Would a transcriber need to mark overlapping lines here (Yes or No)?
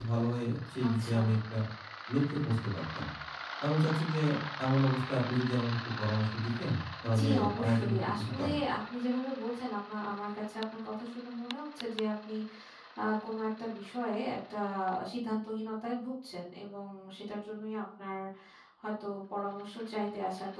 Yes